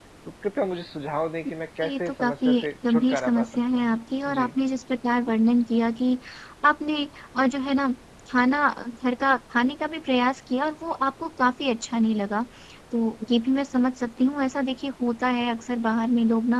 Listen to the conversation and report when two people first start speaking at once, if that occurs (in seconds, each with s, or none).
1.8 s